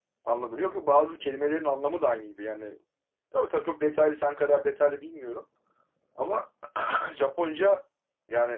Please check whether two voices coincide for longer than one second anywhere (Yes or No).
No